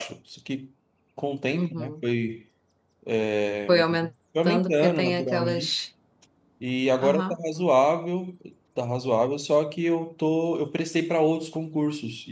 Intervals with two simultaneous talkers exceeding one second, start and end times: 4.4-5.7

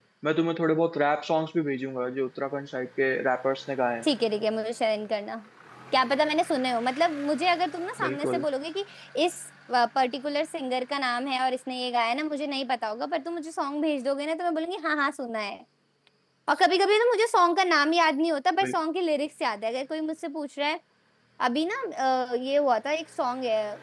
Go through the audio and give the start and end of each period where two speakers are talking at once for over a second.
none

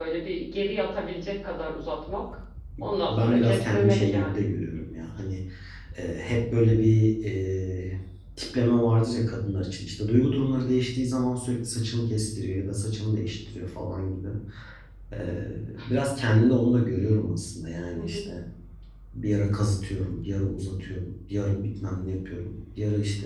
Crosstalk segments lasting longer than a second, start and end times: 3.1-4.4

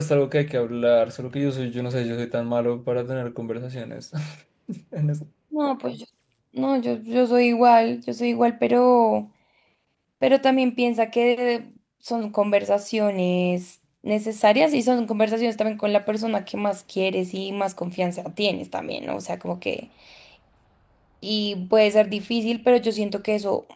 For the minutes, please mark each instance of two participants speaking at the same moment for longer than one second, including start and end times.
none

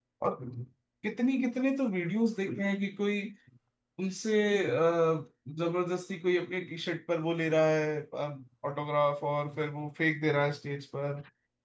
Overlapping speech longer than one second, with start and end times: none

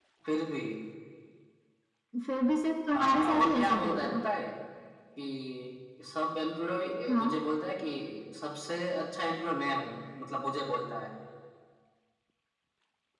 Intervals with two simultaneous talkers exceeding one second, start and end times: 2.9-4.2

